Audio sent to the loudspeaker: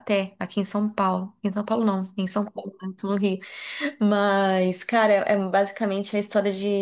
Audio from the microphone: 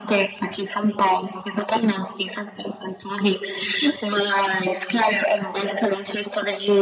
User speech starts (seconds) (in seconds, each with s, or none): none